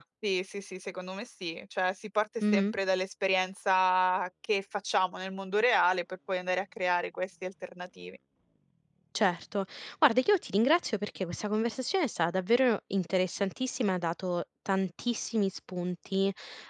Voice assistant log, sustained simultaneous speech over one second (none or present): none